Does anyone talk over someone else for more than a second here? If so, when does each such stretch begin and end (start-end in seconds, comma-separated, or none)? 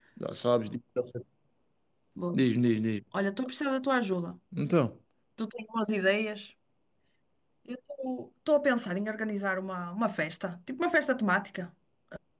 none